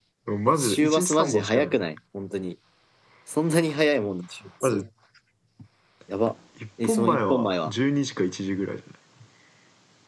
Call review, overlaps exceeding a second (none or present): present